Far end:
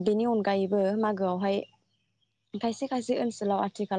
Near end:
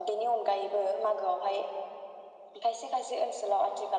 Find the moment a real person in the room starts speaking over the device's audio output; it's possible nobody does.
none

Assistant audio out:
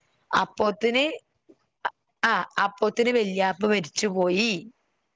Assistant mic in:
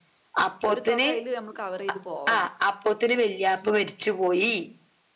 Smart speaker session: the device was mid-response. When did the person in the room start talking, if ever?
0.7 s

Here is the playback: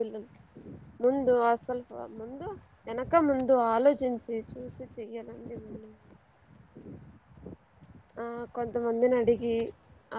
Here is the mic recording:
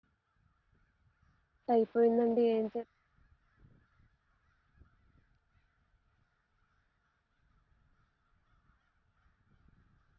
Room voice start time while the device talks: 1.8 s

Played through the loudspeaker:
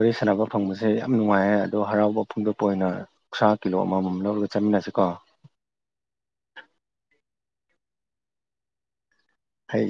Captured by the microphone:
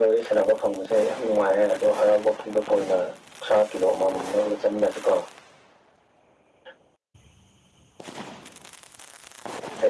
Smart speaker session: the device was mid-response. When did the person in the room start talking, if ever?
none

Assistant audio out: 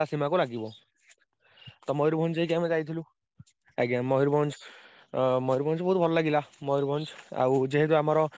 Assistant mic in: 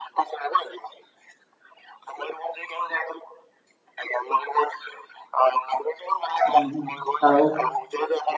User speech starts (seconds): 6.4 s

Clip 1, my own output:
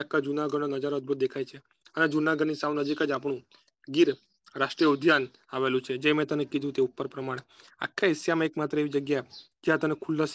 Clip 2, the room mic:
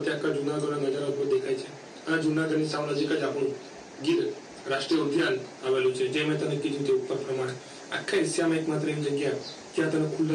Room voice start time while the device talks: none

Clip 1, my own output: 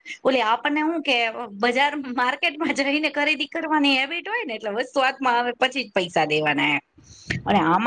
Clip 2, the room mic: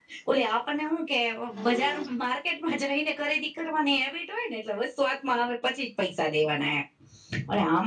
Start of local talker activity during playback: 1.6 s

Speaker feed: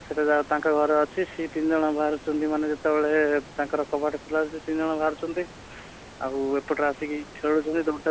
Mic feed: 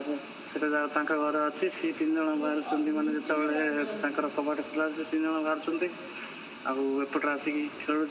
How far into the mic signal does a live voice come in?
2.1 s

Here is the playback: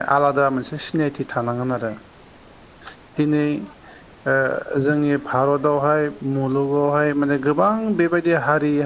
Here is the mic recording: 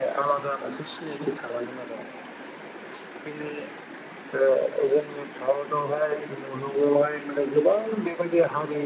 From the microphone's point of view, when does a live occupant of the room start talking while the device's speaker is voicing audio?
none

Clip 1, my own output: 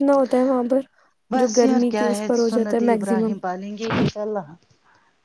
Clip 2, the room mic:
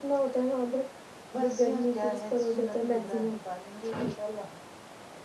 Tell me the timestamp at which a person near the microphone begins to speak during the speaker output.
none

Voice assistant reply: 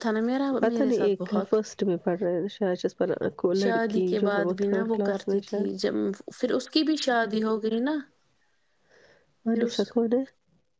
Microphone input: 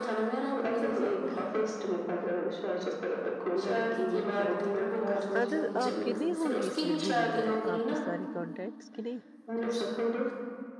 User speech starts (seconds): 5.4 s

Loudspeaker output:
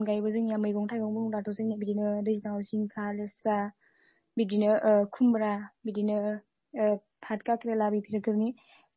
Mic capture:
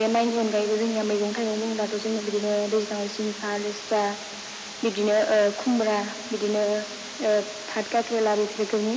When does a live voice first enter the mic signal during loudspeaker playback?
none

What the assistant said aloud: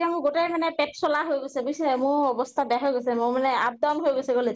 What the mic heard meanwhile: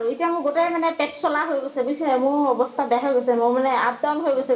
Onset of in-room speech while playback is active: none

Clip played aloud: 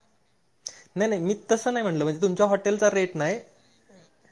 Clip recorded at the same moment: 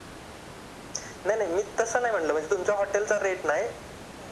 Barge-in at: none

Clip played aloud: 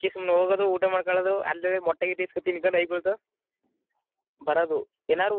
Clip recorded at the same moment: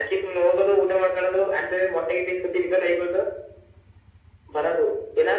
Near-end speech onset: none

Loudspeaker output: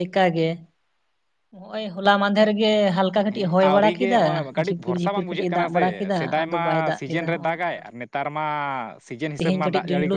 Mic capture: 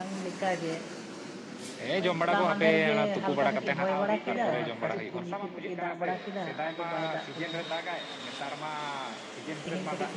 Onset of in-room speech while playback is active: 1.8 s

